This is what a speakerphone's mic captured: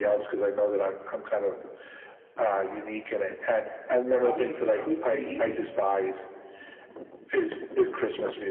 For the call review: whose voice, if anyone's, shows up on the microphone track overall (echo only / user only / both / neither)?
both